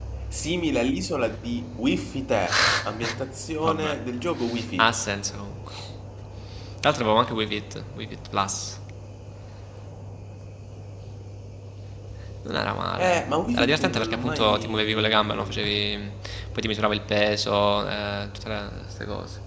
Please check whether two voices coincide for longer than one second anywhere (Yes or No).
Yes